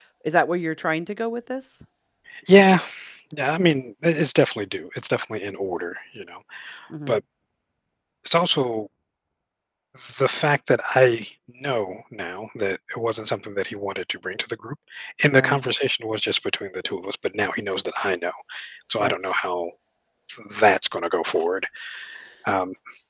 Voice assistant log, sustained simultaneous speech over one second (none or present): none